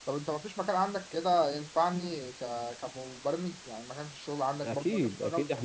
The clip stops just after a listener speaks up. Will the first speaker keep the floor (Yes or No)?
No